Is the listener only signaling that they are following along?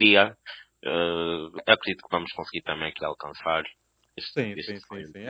No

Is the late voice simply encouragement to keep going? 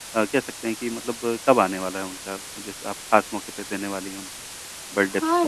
No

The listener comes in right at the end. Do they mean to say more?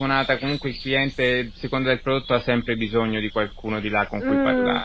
Yes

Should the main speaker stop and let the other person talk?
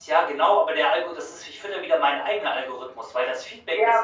Yes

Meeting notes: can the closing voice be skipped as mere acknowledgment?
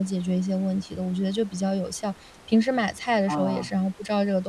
Yes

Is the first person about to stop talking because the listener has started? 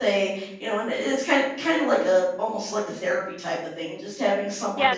Yes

